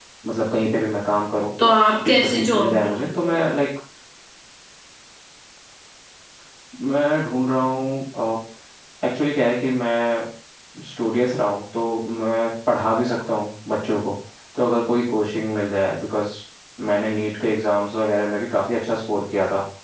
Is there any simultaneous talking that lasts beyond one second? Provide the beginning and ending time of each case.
2.0-3.5

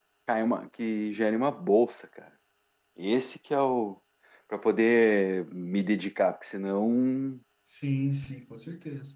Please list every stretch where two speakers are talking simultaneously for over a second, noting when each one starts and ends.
none

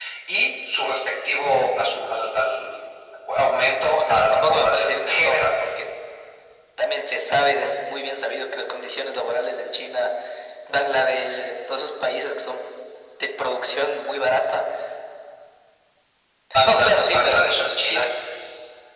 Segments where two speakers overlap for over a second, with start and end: 4.0-5.6, 16.6-18.1

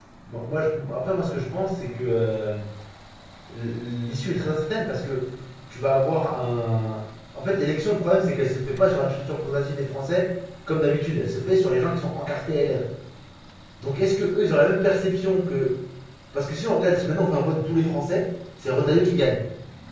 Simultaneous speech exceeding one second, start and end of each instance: none

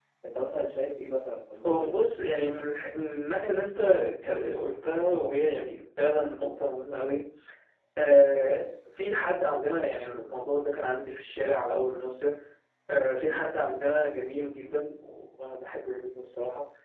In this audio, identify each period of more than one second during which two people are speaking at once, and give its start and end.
none

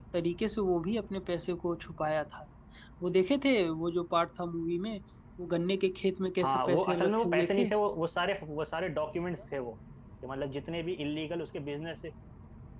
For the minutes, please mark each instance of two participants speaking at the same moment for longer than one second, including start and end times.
6.4-7.7

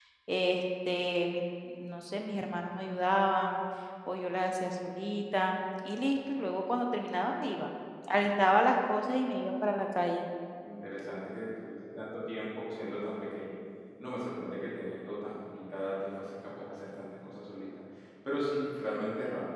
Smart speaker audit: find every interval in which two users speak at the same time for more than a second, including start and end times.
none

